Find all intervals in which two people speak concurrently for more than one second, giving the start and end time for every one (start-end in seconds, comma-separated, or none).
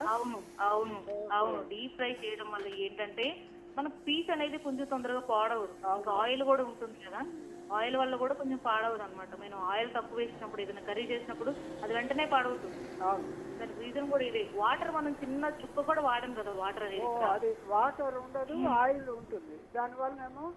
none